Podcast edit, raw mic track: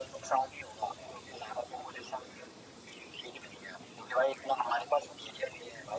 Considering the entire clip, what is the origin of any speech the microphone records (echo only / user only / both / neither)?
echo only